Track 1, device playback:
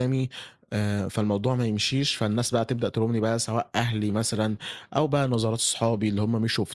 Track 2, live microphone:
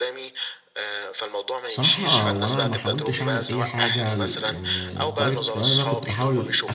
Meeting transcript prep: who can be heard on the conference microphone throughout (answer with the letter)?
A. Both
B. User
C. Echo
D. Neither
A